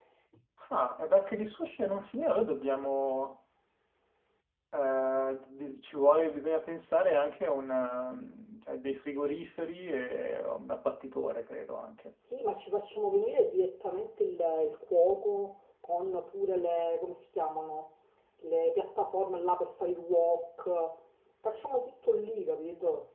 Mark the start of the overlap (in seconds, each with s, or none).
none